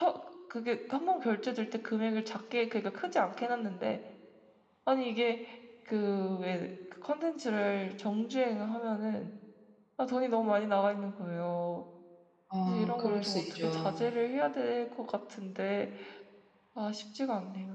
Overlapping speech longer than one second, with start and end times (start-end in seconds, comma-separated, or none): 12.6-14.0